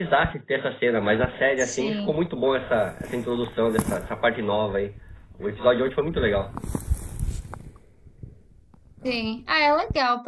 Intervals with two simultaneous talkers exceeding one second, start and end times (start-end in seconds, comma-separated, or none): none